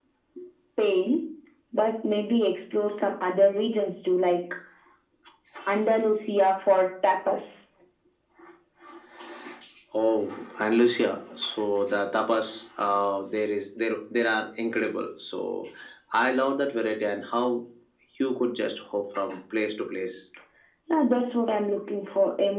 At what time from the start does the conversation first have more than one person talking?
none

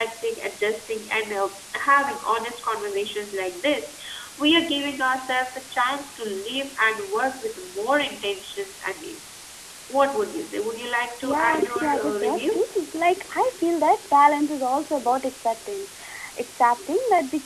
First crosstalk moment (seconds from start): 11.2 s

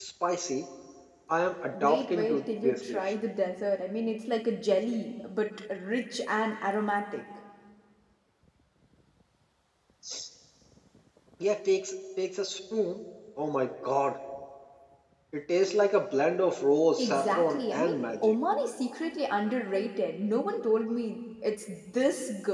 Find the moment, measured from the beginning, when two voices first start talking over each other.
1.8 s

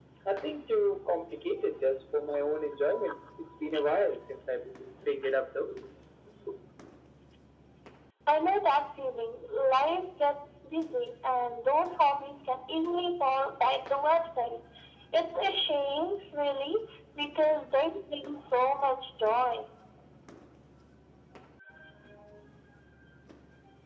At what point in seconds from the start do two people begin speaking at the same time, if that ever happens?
none

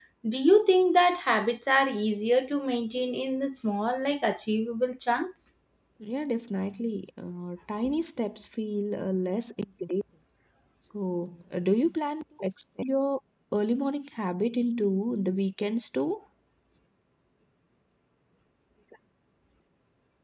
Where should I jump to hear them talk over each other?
none

